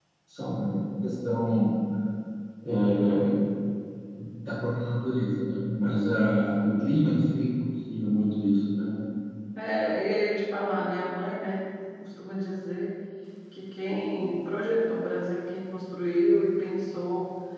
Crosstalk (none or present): none